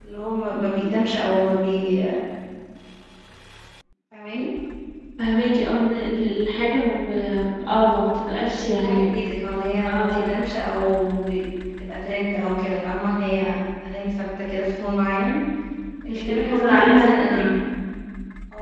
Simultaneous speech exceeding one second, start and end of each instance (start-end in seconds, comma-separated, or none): 16.1-17.6